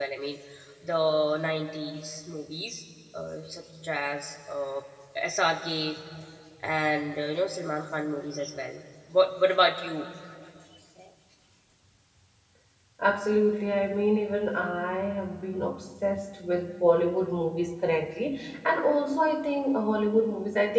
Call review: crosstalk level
none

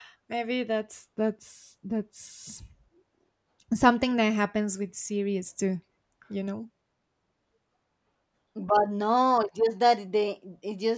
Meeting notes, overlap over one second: none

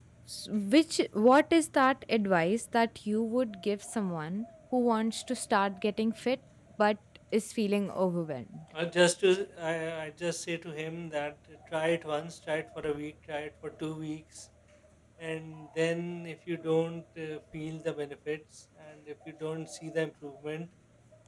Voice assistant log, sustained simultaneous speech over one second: none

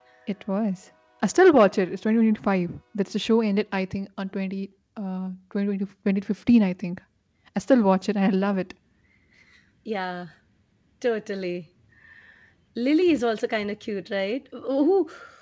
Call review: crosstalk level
none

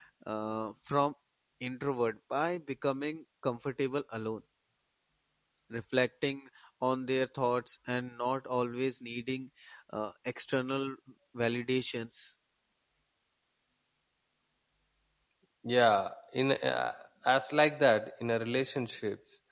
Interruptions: none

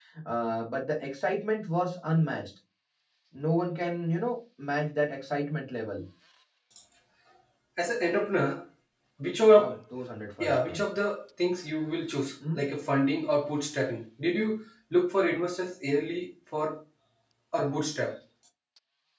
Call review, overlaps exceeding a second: none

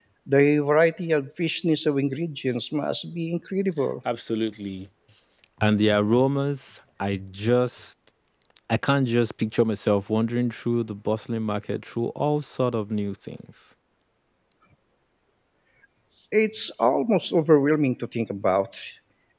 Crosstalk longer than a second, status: none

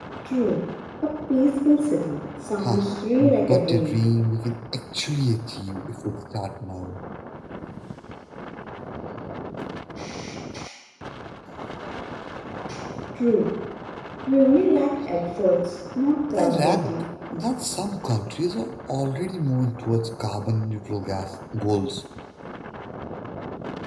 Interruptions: present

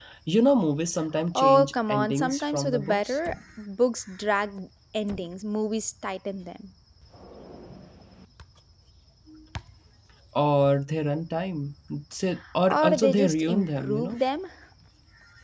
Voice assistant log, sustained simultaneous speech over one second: present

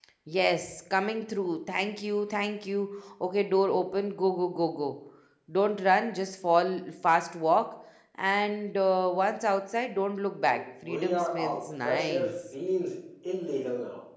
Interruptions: present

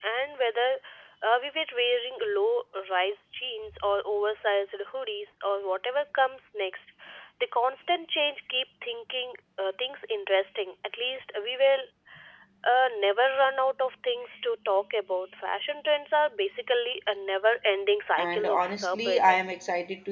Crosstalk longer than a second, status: present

